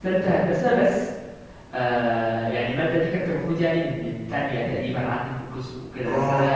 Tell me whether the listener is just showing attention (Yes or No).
Yes